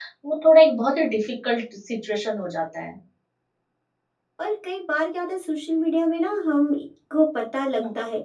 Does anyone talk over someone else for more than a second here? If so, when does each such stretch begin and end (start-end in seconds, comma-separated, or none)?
none